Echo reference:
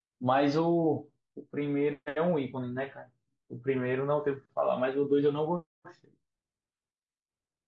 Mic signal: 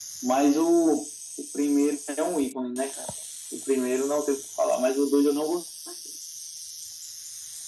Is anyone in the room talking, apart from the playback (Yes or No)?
No